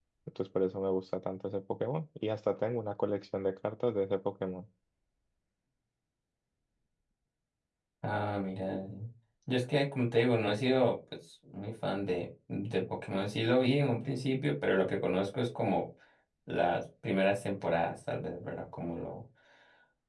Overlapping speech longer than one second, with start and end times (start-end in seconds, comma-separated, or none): none